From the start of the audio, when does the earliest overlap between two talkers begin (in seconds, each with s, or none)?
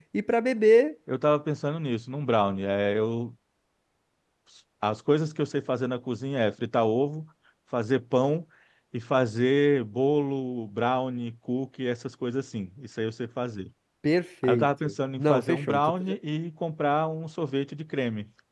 14.4 s